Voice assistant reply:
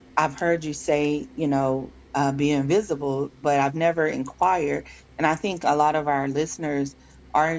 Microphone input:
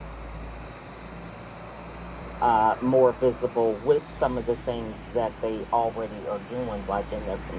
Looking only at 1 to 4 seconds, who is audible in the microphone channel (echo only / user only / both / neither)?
user only